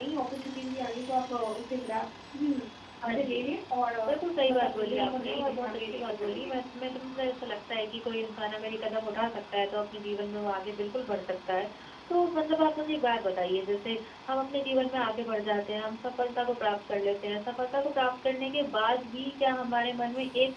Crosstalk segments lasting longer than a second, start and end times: 4.1-6.5

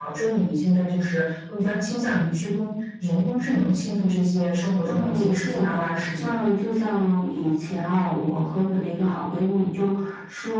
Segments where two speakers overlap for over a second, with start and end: 4.8-6.4

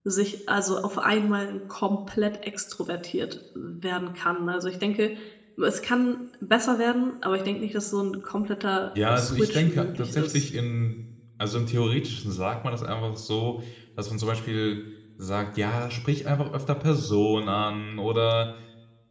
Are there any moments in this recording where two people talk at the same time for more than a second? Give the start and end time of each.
9.1-10.5

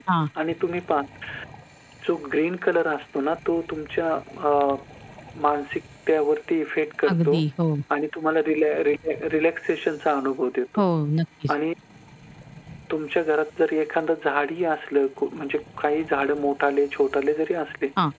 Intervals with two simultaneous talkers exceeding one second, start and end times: none

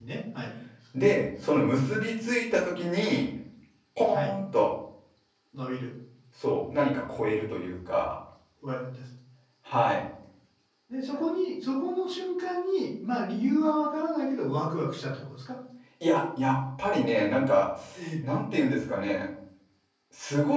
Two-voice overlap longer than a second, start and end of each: none

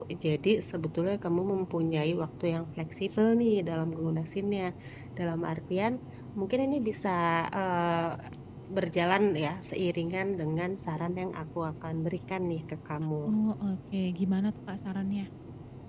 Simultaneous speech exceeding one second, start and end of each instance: none

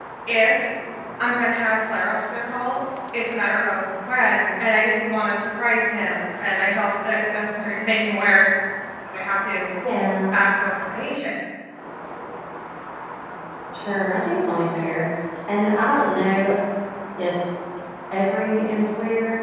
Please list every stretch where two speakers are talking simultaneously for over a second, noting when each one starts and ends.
none

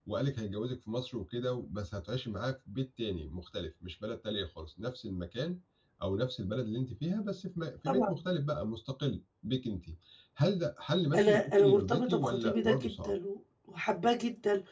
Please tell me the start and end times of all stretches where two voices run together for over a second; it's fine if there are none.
11.1-13.1

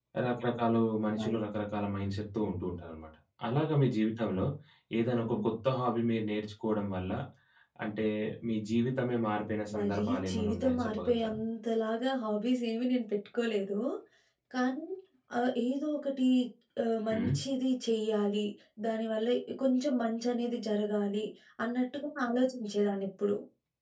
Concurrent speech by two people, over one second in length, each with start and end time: 9.8-11.4

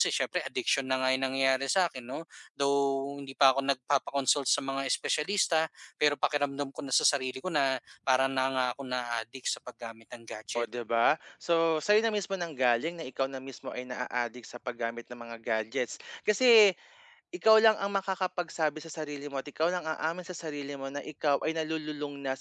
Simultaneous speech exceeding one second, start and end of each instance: none

